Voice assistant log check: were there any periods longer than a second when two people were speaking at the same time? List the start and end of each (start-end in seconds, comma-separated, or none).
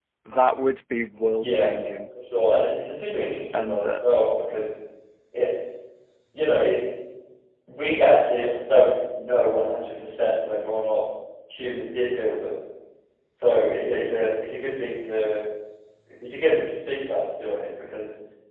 none